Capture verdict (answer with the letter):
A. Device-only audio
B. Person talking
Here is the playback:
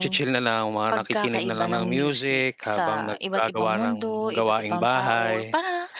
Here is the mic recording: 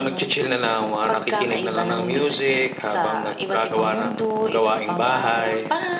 A